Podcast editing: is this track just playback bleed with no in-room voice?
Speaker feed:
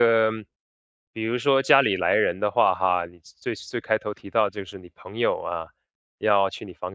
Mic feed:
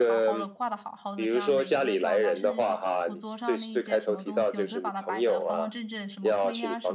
No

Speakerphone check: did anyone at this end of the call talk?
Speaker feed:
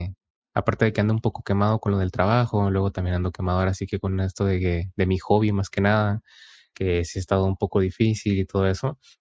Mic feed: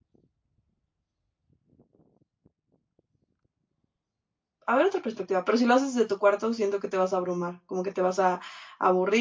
Yes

